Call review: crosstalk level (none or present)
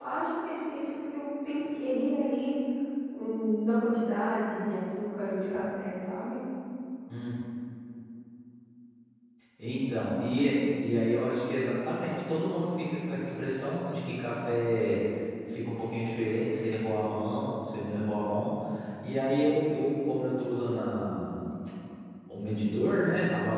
none